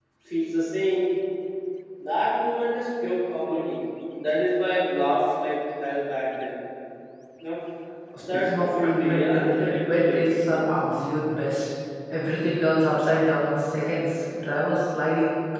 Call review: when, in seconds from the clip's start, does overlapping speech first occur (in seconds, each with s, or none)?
8.2 s